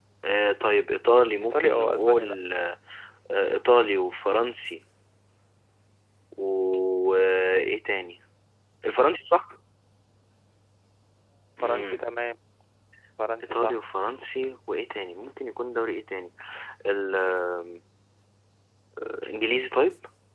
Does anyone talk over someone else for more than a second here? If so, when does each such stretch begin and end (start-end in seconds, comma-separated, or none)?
1.1-2.4